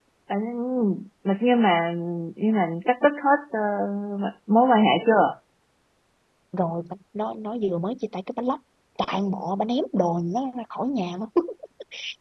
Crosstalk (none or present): none